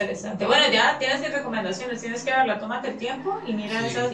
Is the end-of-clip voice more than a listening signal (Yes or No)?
No